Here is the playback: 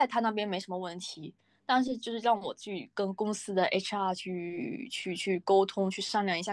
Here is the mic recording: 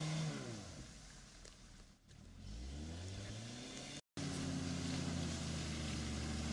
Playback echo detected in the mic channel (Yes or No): No